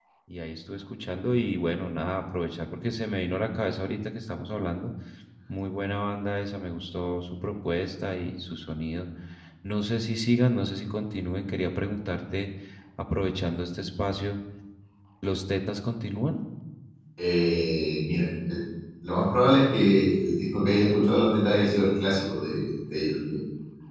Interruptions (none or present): none